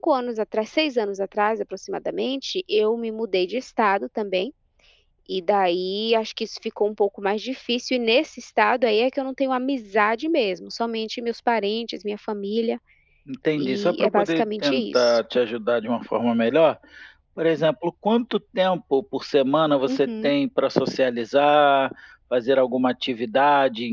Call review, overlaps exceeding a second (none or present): present